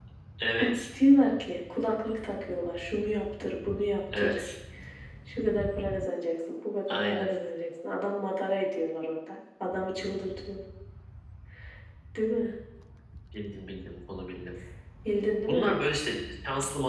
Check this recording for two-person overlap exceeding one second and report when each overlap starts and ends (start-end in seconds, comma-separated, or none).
none